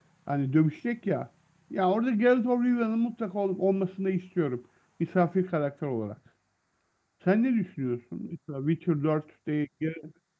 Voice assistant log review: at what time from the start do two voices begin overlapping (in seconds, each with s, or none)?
none